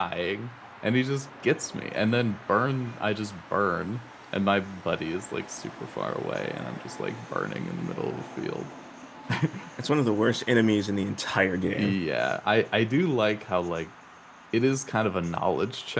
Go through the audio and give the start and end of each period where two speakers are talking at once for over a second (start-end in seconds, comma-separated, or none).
none